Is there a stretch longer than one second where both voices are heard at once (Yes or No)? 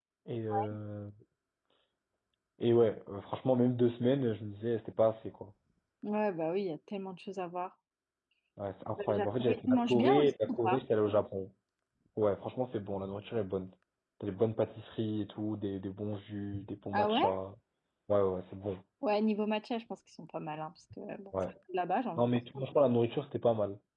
Yes